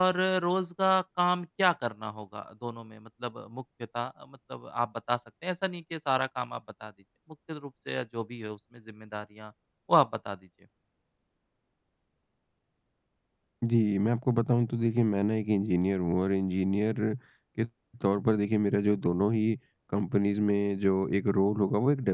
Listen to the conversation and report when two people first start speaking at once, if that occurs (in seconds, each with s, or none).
none